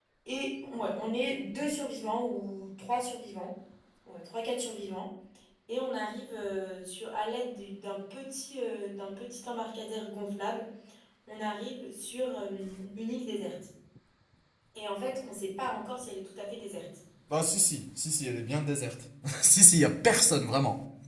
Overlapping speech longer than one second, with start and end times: none

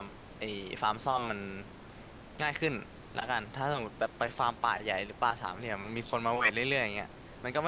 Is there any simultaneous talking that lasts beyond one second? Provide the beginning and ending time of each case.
none

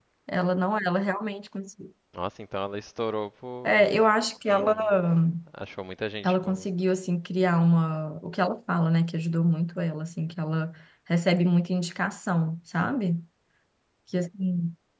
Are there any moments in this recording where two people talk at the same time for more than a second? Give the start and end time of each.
none

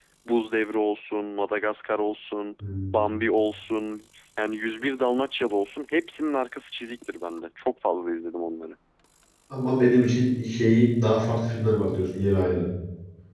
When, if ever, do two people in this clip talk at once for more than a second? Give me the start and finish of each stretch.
none

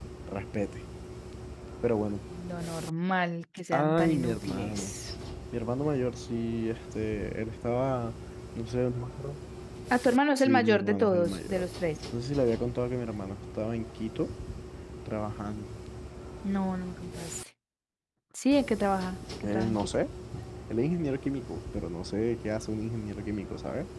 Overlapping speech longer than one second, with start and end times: 3.7-4.9, 10.3-11.7

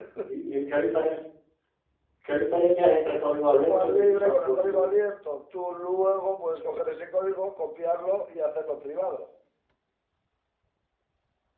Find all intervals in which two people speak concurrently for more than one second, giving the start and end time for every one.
3.5-4.9

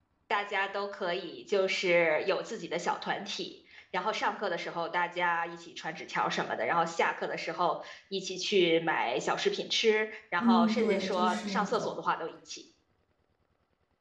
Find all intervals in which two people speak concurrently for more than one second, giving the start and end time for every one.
10.4-11.9

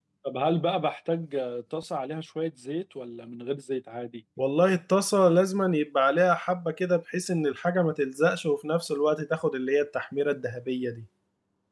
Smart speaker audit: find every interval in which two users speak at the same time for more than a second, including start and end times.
none

